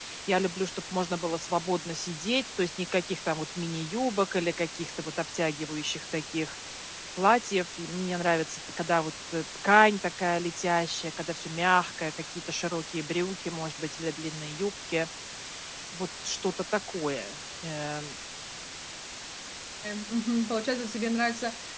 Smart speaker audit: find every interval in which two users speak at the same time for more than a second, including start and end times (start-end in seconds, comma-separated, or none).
none